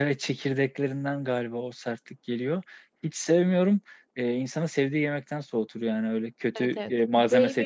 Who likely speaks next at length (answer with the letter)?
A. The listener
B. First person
A